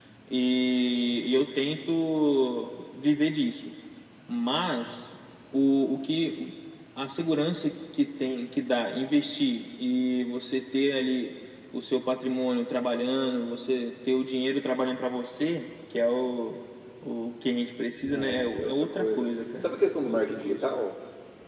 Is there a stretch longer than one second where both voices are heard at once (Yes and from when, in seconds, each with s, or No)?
Yes, from 17.9 s